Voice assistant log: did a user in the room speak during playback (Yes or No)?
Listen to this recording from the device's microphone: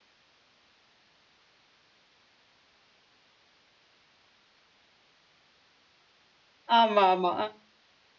Yes